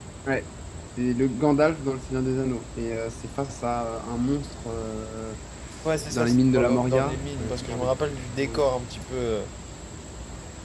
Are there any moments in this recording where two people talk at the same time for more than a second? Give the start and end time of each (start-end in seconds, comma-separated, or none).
6.1-8.6